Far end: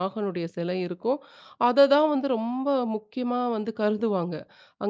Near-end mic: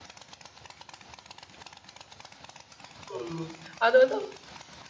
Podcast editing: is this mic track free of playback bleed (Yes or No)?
Yes